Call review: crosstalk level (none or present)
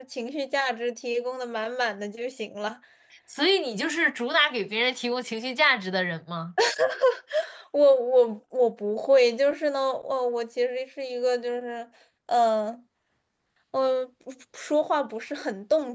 none